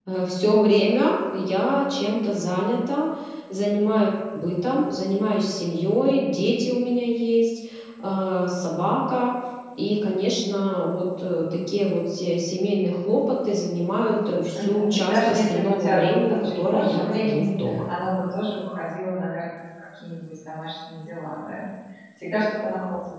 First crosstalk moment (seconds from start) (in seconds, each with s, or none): 14.5 s